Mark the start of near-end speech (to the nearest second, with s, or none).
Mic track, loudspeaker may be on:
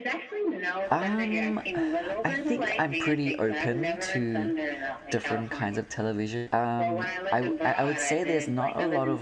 1 s